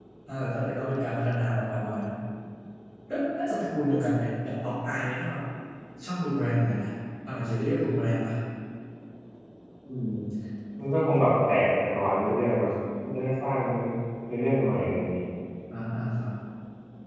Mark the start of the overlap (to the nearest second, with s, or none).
none